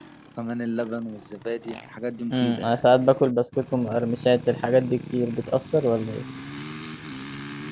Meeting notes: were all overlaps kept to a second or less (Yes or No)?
Yes